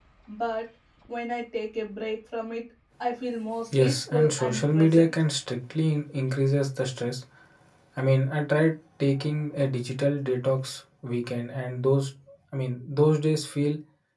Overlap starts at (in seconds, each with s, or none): 3.7 s